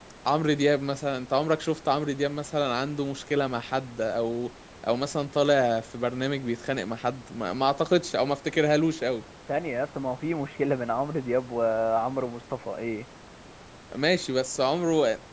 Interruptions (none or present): none